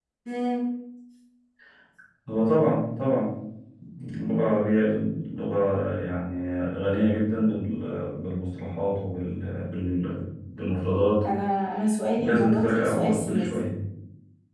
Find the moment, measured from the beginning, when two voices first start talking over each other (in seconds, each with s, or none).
12.2 s